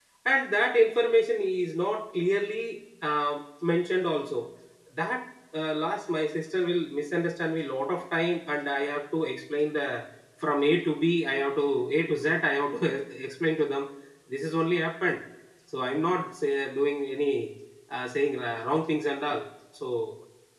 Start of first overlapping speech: none

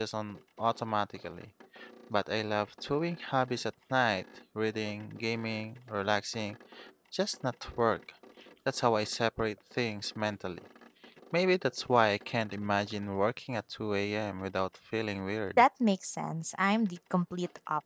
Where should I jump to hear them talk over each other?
none

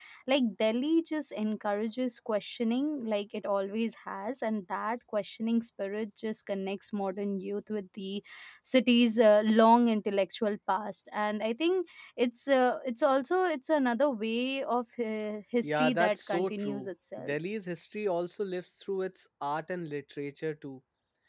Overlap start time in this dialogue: 15.6 s

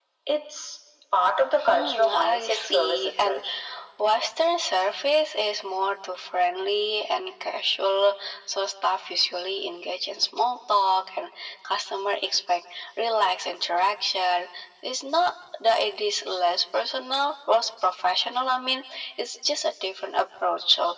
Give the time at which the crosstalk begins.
1.7 s

